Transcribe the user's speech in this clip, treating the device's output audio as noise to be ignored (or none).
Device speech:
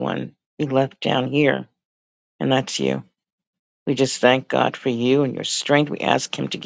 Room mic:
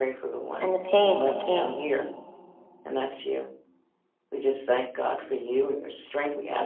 and the pain that came.